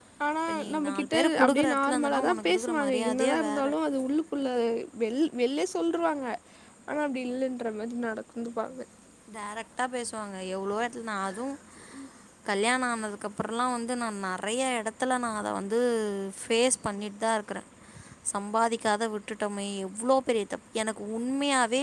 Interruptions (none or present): present